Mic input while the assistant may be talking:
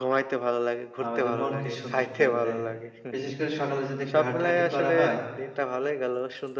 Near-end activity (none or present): present